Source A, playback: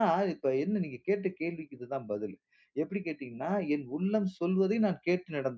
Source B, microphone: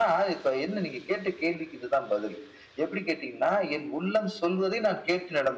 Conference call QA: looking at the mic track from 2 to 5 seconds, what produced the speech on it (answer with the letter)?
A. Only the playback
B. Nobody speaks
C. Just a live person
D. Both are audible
A